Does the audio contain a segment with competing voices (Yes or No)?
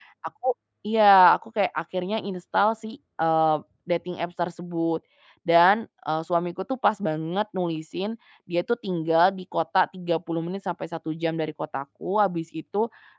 No